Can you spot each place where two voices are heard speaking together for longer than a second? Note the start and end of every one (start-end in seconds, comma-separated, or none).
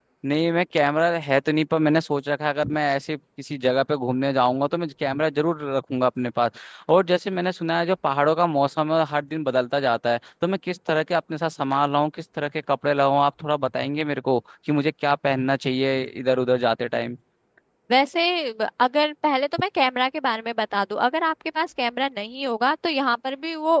none